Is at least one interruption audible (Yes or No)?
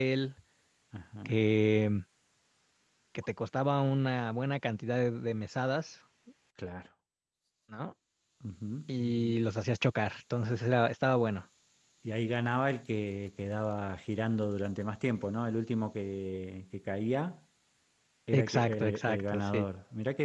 Yes